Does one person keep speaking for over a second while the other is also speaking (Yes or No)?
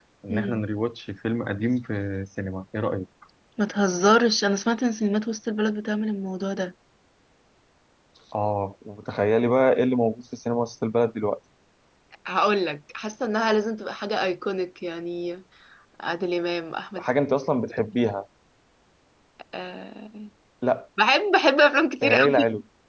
No